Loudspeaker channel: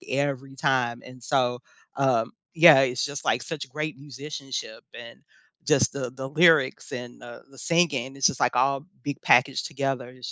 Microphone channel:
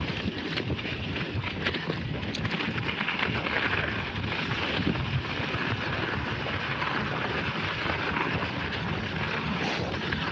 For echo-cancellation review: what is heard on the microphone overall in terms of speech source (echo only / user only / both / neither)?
neither